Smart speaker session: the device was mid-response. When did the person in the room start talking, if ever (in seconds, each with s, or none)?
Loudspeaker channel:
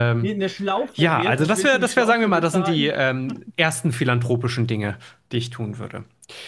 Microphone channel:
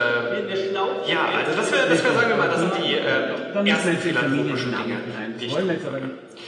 1.9 s